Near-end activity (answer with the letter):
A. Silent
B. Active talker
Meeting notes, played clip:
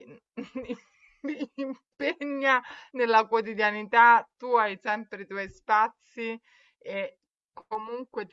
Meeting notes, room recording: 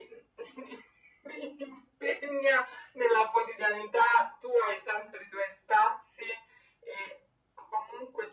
A